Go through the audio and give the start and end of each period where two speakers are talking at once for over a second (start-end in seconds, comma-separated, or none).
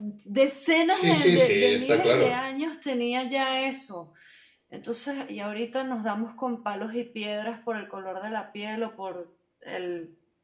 0.9-2.3